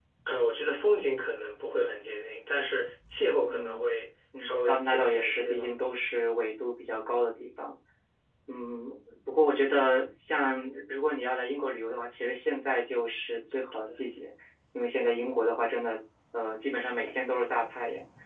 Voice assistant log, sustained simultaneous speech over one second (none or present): present